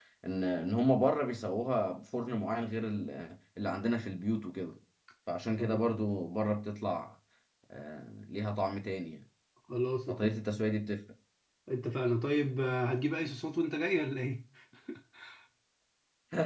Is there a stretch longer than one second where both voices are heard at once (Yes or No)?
No